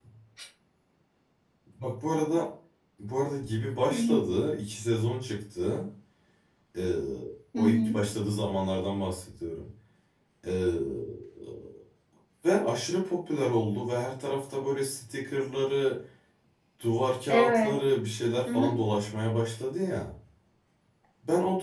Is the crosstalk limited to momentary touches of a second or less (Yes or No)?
Yes